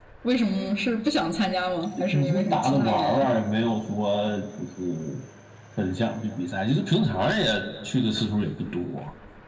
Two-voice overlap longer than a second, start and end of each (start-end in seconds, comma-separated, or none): 2.0-3.3